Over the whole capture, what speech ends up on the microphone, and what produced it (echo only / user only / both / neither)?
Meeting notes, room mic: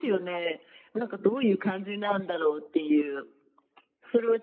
echo only